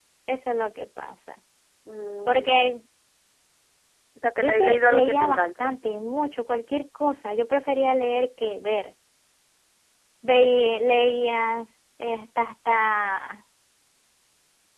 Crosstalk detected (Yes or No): Yes